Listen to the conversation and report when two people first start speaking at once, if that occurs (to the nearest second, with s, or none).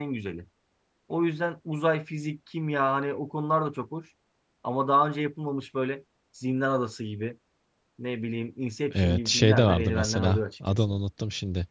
9 s